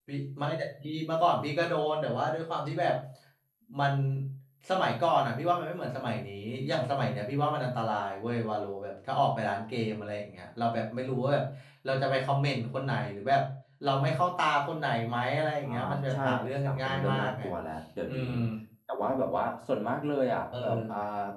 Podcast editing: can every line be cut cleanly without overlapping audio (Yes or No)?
No